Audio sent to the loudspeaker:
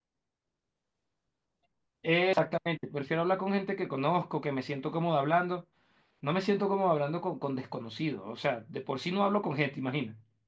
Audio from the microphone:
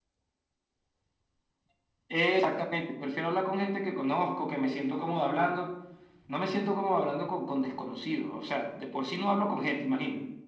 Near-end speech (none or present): none